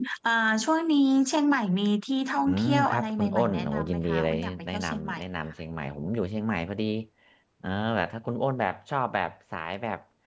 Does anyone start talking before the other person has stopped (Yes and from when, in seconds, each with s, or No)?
Yes, from 2.5 s